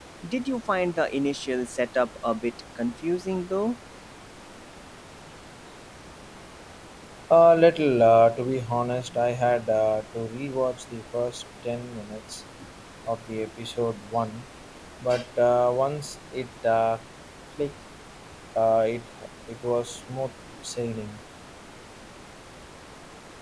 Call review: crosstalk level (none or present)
none